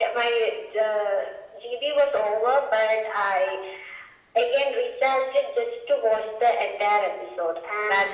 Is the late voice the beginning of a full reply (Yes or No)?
No